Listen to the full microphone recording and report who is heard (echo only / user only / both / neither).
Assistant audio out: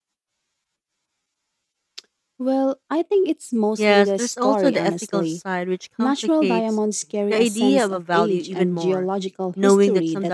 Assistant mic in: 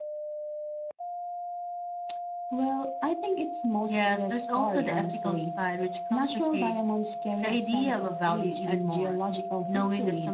echo only